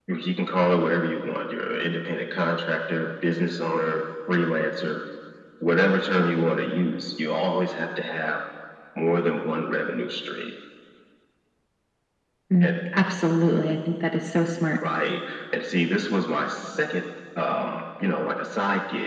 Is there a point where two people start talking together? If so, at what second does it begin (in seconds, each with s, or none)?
none